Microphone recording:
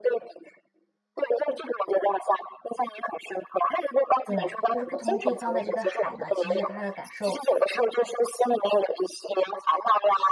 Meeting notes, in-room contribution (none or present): present